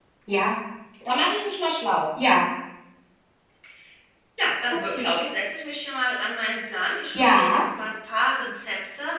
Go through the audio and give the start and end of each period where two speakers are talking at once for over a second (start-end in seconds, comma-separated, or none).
none